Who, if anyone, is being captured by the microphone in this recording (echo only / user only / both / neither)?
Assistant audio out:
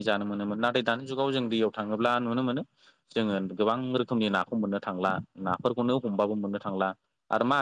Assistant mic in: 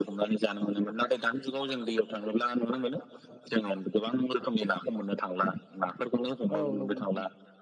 both